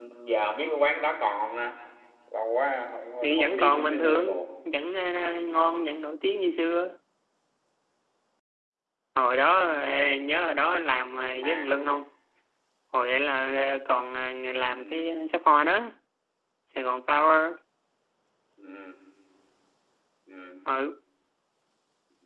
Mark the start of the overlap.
3.2 s

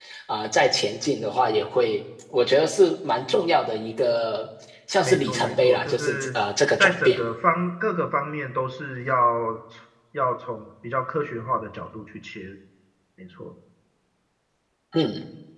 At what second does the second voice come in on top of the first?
5.0 s

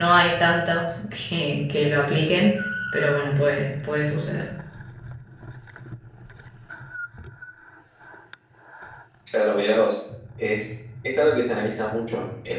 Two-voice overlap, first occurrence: none

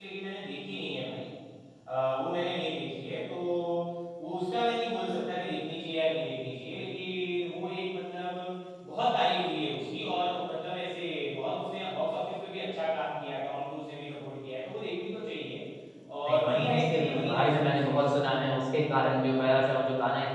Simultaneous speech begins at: 16.3 s

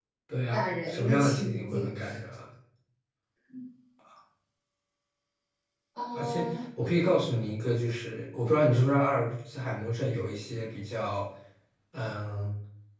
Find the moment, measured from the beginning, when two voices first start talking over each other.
0.5 s

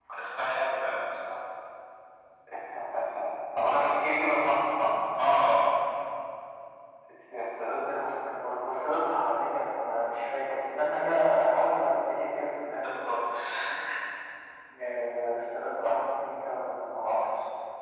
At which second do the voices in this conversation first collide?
none

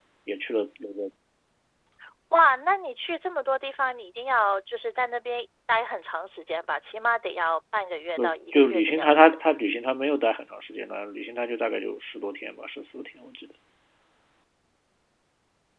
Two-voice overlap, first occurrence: 8.2 s

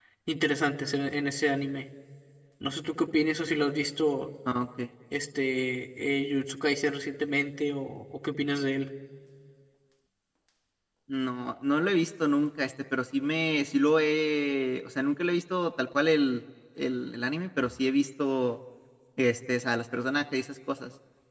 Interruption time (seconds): none

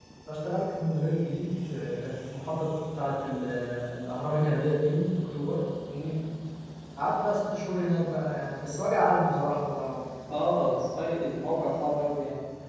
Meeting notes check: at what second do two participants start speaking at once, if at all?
none

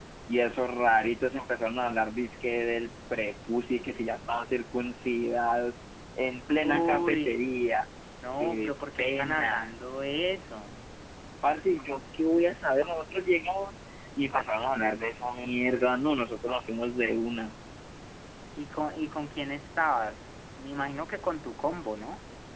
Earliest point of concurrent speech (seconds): 6.6 s

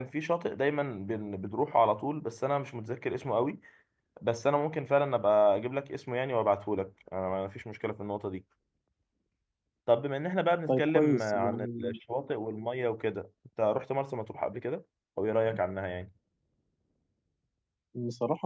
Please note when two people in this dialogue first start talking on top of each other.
10.7 s

